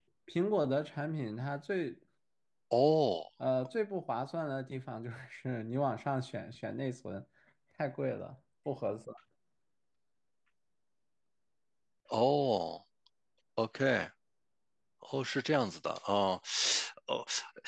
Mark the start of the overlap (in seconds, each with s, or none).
none